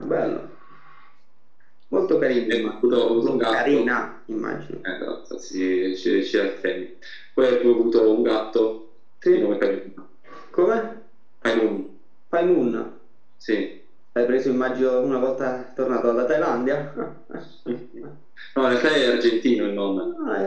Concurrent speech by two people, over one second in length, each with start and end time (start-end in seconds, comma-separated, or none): 2.5-3.9